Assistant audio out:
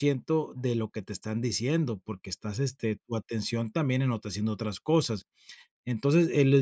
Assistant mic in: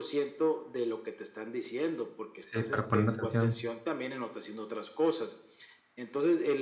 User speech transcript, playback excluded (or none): Sí, para poner atención.